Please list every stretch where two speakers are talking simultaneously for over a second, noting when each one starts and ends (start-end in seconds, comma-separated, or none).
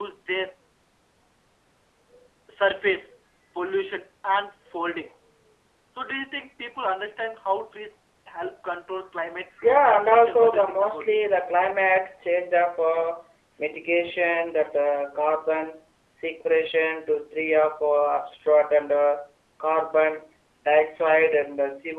9.6-11.2